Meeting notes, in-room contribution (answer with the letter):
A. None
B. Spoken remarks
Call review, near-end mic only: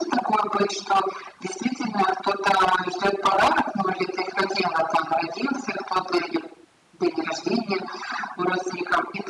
A